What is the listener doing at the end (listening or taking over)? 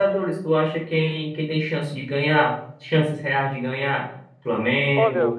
listening